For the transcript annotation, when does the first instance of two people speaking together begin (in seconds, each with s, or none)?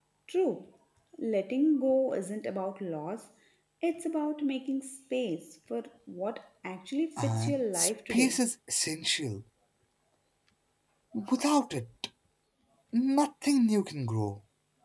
7.2 s